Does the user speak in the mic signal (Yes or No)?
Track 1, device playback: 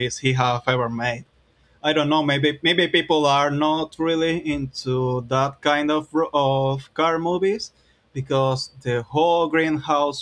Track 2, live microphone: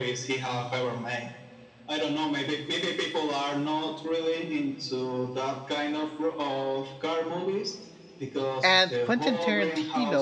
Yes